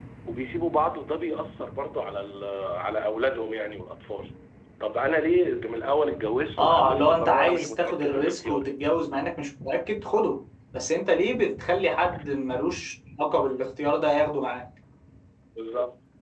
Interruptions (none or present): present